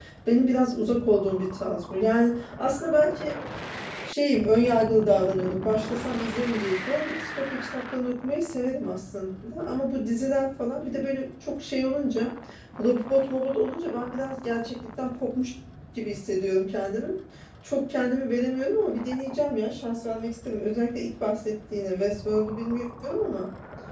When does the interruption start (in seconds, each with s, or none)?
none